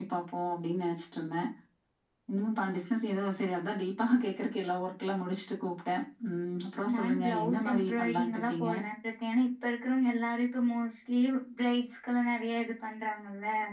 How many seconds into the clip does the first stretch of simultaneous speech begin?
6.9 s

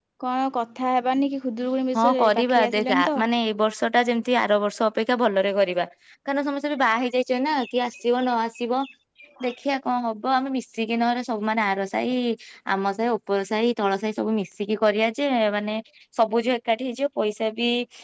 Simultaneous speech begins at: 1.9 s

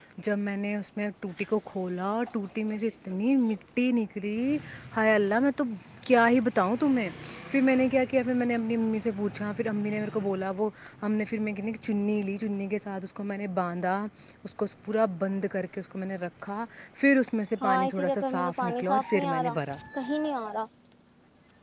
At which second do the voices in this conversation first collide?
17.6 s

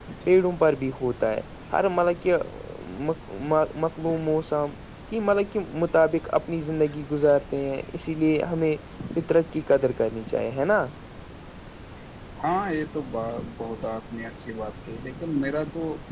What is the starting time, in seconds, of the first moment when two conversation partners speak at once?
none

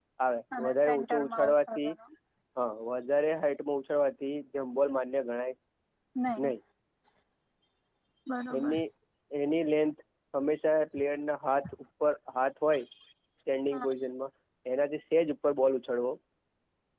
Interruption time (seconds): 0.6 s

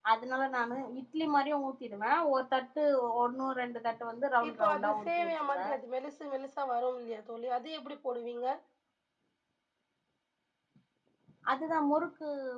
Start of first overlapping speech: 4.4 s

